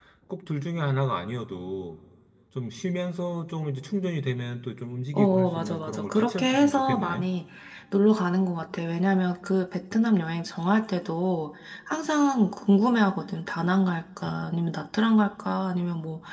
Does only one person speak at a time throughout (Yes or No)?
No